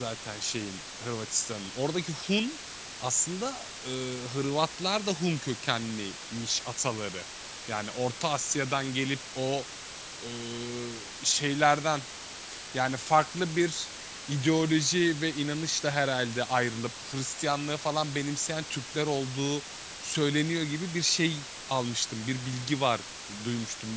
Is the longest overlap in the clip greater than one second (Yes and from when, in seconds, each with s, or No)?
No